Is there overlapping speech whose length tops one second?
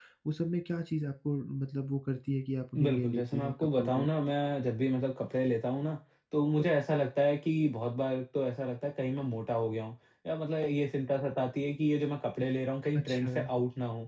Yes, from 2.8 s

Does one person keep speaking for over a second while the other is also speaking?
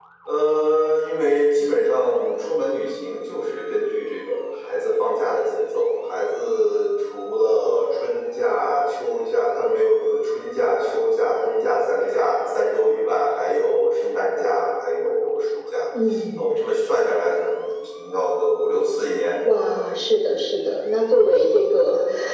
No

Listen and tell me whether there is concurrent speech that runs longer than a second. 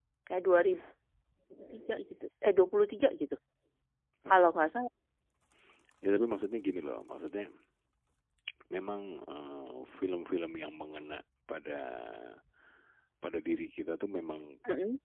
No

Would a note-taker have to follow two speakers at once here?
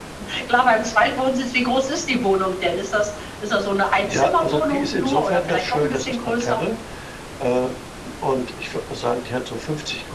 Yes, from 4.0 s

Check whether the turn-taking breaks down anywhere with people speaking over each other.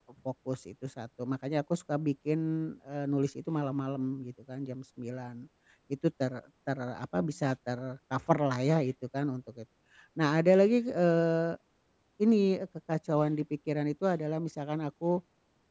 No

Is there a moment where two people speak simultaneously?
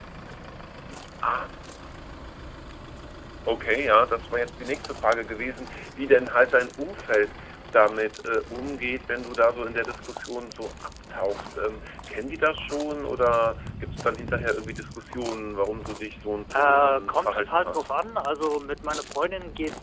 Yes, from 16.5 s

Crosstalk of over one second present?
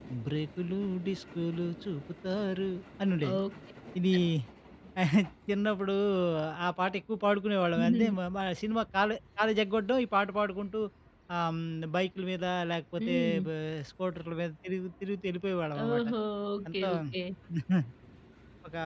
No

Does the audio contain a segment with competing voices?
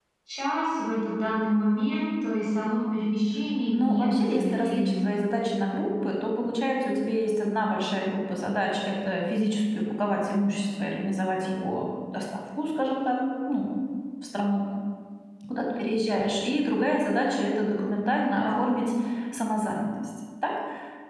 Yes, from 3.7 s

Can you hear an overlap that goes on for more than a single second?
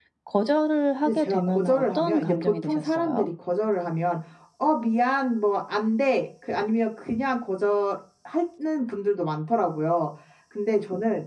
Yes, from 1.0 s

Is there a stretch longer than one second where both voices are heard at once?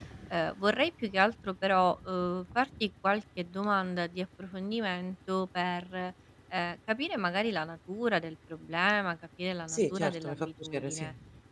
Yes, from 9.7 s

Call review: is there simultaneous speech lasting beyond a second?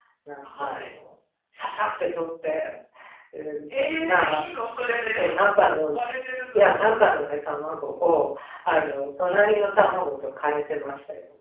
No

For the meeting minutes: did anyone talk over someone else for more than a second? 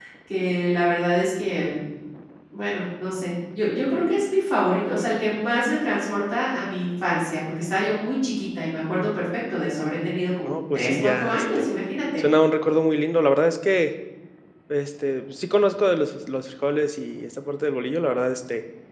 Yes, from 10.4 s

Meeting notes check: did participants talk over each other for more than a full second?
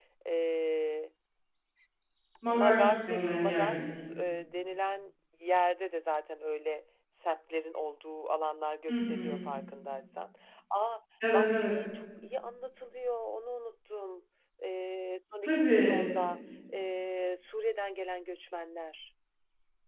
Yes, from 2.5 s

